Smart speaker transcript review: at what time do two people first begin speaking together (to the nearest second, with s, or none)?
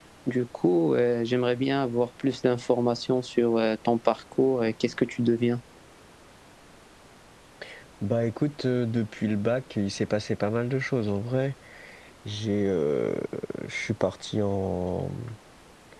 none